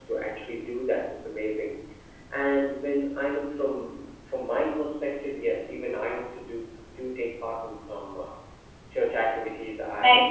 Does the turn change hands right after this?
Yes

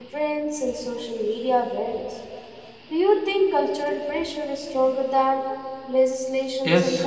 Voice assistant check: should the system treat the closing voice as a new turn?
Yes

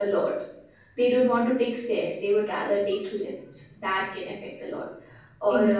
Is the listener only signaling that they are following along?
Yes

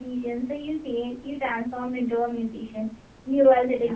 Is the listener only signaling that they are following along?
Yes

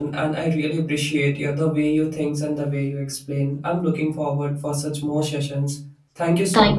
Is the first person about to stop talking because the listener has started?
Yes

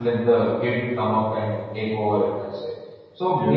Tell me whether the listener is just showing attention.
Yes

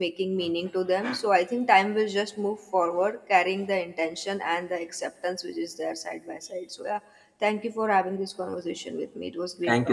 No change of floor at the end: No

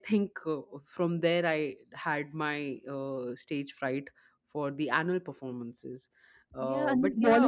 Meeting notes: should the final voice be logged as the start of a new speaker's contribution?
Yes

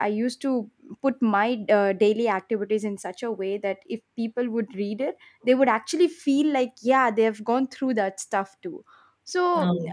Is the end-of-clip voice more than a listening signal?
No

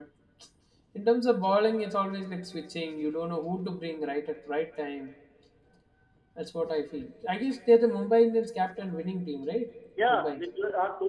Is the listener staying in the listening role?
No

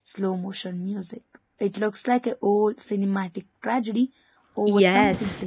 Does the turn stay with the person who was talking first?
No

